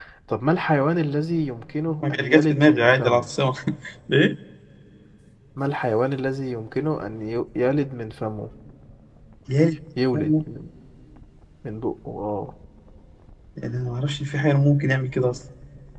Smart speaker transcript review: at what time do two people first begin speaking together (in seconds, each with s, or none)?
2.0 s